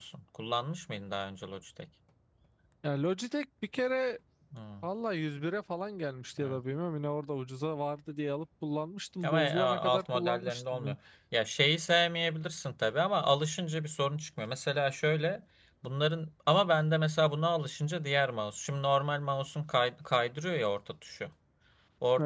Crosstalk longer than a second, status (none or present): present